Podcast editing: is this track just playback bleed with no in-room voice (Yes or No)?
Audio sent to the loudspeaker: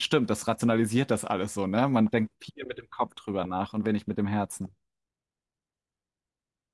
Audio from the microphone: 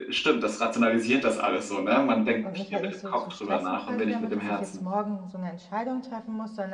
No